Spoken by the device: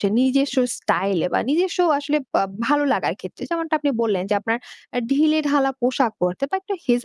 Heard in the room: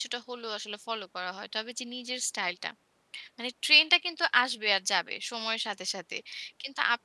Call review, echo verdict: none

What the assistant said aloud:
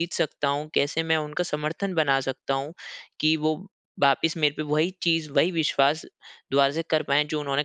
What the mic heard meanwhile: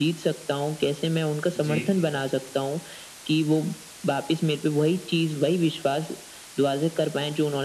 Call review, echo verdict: present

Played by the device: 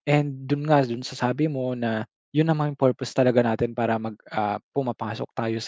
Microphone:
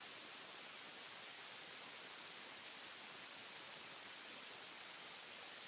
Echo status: none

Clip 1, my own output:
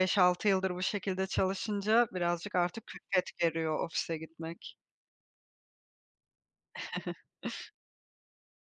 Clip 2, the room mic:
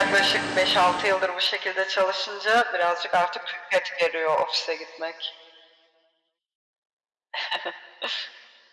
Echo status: present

